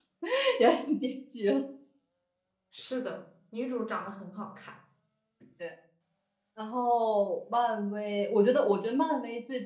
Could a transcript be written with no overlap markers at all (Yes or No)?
Yes